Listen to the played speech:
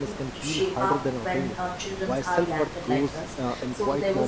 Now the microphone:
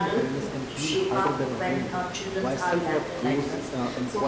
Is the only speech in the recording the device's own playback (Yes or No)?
Yes